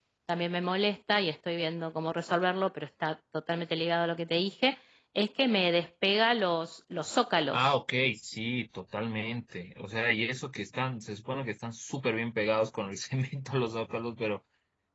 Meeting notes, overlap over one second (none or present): none